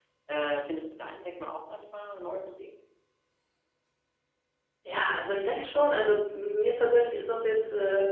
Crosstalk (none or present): none